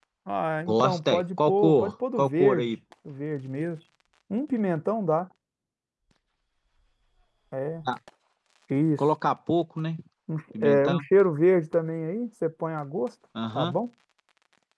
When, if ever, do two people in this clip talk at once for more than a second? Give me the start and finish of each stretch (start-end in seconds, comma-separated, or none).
0.7-2.7